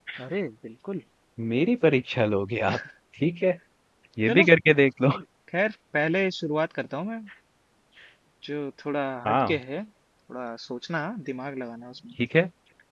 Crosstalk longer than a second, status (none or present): none